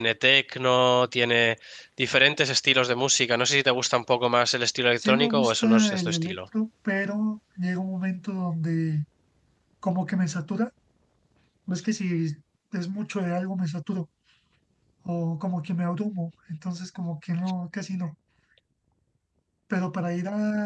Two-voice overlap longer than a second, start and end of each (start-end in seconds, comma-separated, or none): 5.0-6.4